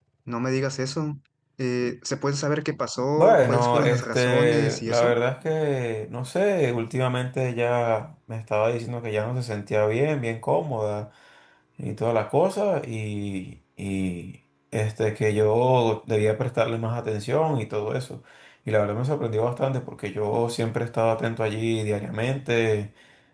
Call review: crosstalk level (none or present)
present